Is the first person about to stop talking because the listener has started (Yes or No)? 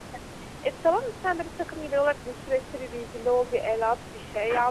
Yes